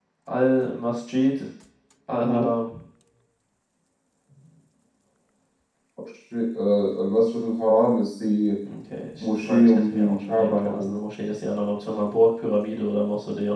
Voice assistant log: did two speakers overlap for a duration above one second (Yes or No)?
Yes